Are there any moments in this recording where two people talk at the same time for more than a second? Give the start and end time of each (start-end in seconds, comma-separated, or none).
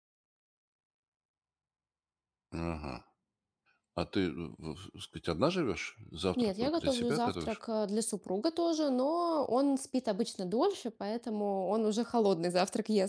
6.4-7.6